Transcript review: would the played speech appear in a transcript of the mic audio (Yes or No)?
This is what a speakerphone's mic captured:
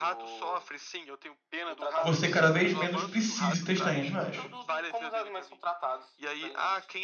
Yes